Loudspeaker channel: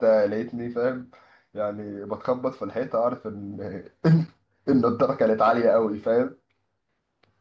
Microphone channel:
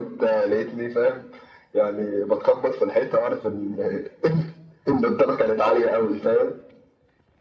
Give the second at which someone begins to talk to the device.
none

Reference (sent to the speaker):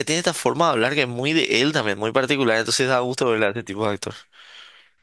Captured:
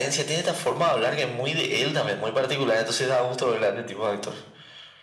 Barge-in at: none

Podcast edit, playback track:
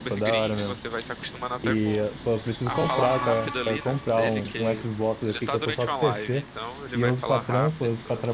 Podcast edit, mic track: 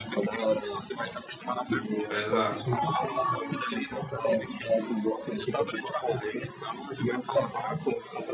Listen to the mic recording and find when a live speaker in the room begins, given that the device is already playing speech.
2.1 s

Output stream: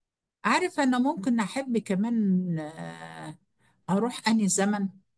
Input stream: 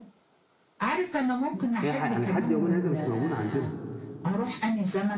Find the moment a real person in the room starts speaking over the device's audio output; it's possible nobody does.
1.8 s

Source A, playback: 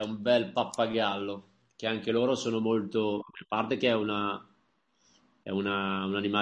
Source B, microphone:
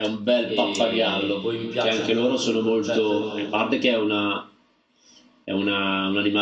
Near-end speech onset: 0.4 s

